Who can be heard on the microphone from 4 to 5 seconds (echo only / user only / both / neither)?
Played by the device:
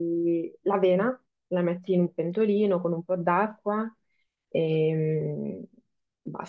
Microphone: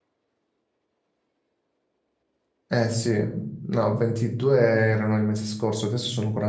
user only